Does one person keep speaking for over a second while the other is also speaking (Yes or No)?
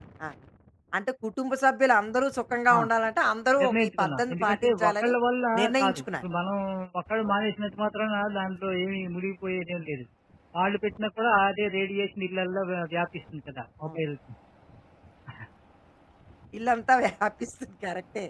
Yes